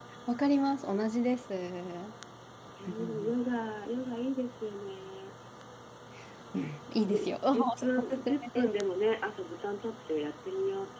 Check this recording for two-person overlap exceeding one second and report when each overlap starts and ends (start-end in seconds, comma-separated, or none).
7.0-8.7